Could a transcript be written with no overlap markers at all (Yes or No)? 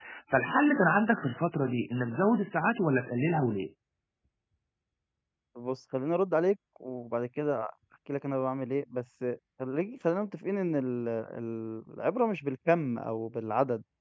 Yes